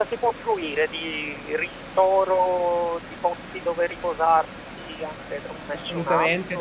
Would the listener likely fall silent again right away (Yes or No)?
No